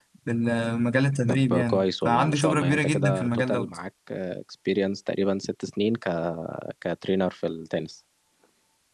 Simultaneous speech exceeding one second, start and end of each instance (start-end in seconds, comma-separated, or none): 1.3-3.8